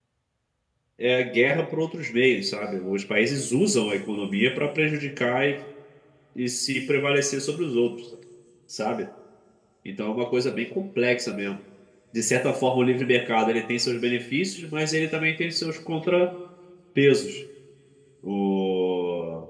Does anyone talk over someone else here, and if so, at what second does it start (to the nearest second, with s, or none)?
none